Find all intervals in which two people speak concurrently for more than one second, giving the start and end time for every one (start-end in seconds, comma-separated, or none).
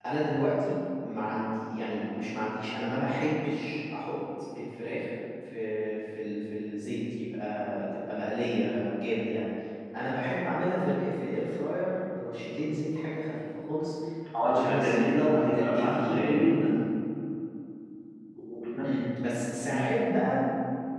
14.4-16.6